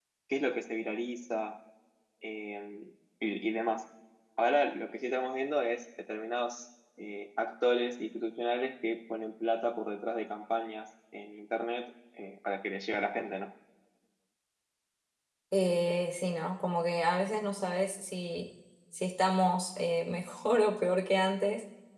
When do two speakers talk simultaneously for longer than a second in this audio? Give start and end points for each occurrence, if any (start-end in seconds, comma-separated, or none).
none